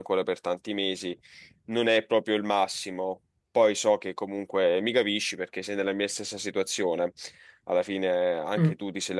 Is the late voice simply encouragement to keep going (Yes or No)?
Yes